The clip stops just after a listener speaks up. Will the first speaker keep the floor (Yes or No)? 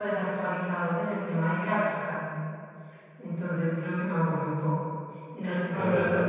No